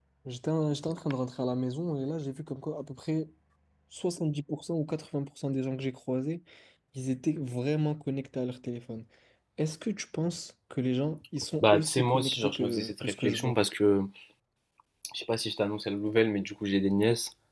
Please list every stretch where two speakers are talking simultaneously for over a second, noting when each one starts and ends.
11.6-13.6

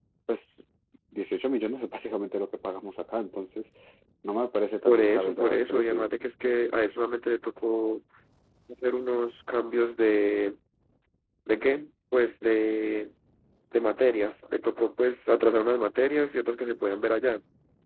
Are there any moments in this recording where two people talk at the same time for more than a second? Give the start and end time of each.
4.9-6.1

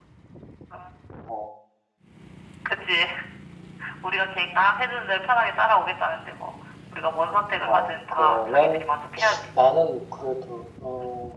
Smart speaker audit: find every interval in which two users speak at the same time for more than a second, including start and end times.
7.7-8.9

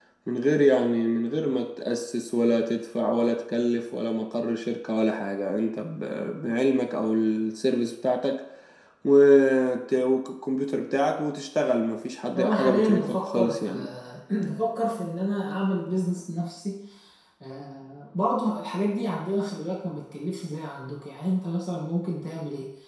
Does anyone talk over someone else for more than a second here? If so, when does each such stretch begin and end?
12.4-13.7

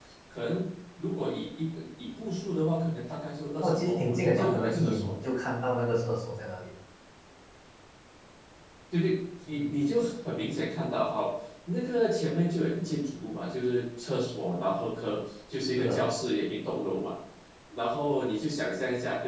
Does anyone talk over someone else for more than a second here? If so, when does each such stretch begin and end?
3.6-5.1

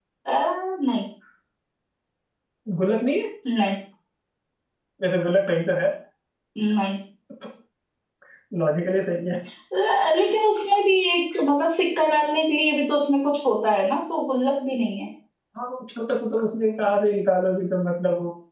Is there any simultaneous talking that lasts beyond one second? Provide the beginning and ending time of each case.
none

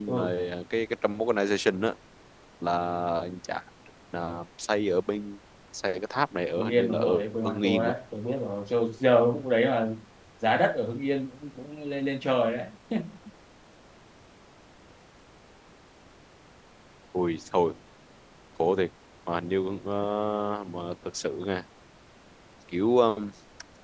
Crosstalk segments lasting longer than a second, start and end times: 6.6-7.9

